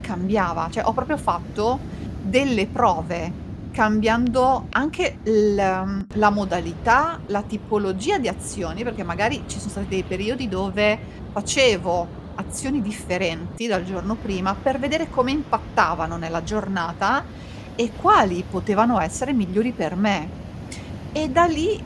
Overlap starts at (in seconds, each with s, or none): none